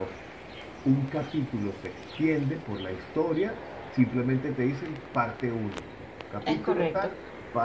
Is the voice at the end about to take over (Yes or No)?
No